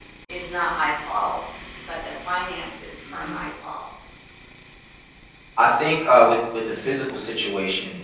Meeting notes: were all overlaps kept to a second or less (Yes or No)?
Yes